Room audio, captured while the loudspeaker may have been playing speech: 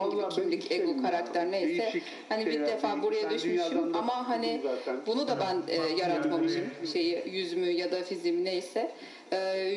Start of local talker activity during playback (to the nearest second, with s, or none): 5 s